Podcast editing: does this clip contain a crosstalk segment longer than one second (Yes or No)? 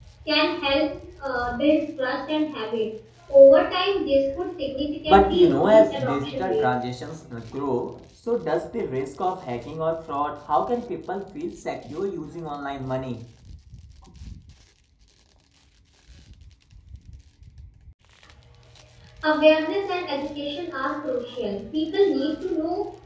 Yes